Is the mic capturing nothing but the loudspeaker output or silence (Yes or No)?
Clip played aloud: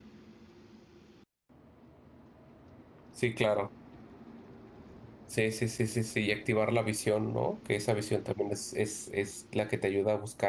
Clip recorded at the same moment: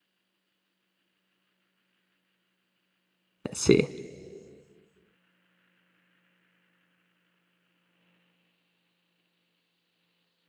No